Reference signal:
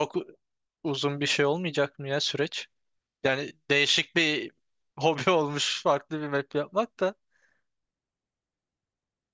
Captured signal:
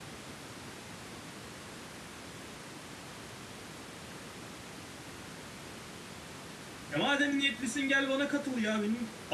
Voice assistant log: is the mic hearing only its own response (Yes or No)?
No